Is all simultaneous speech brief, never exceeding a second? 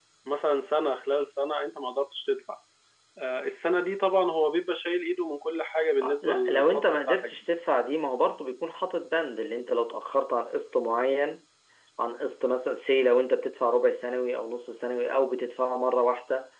No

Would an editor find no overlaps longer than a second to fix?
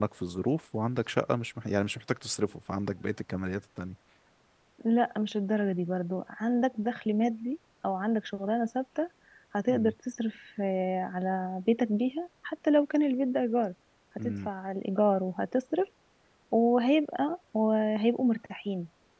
Yes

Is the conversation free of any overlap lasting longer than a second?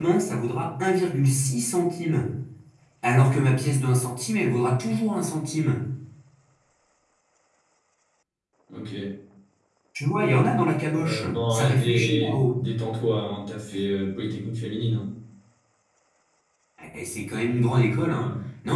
No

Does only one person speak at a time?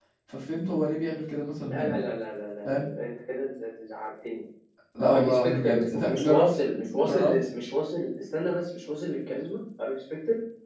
No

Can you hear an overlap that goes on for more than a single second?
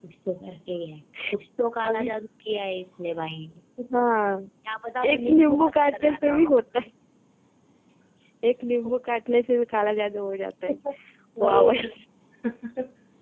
Yes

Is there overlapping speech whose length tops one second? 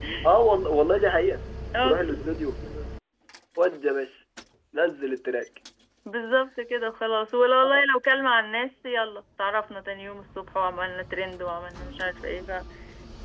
No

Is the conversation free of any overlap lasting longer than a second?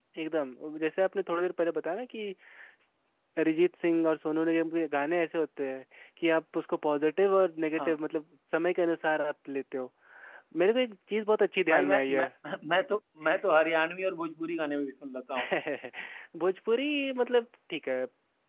Yes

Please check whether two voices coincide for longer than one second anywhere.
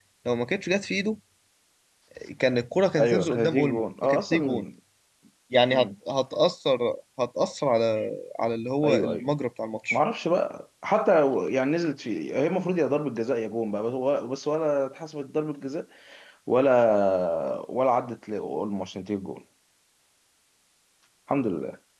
Yes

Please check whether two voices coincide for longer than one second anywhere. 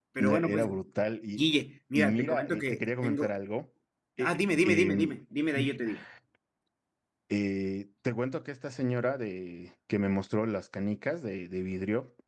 Yes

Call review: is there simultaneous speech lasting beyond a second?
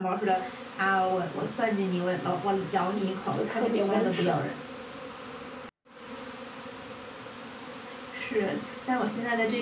Yes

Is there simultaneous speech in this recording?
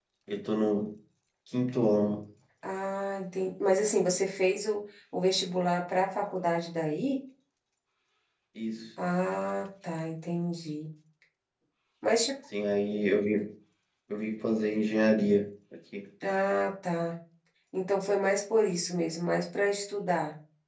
No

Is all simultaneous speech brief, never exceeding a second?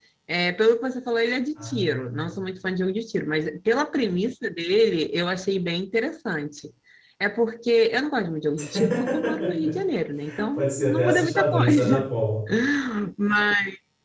No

